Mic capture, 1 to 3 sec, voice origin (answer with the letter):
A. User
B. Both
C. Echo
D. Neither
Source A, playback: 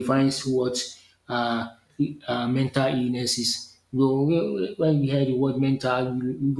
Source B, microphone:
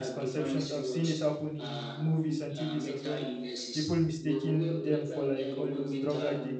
B